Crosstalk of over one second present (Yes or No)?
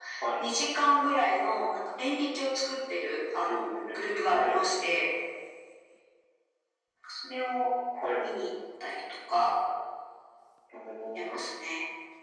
No